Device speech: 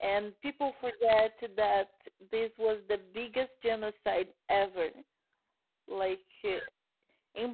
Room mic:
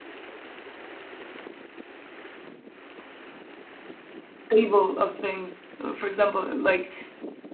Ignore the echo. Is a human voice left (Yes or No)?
Yes